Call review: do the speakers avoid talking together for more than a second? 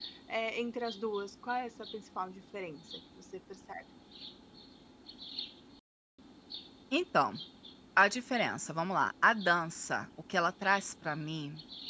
Yes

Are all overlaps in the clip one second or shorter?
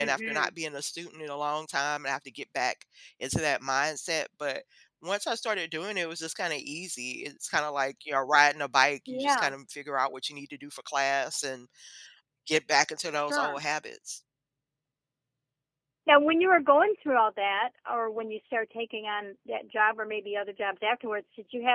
Yes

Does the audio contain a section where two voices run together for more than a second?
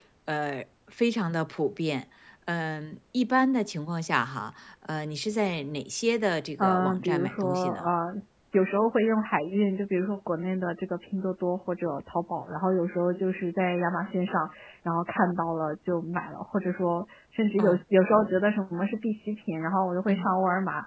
Yes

